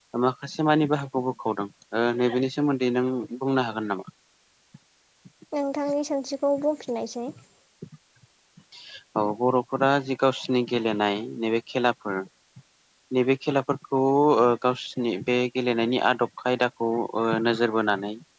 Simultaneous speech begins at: none

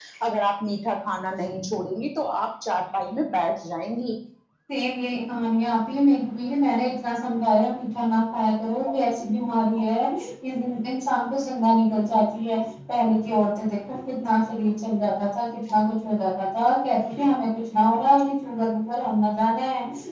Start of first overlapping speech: none

